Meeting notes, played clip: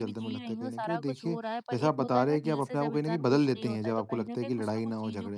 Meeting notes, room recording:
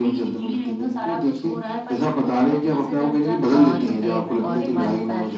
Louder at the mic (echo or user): echo